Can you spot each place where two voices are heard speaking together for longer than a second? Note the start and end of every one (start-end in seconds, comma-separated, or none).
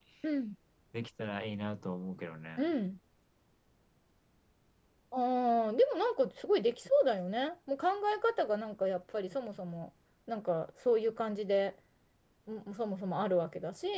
none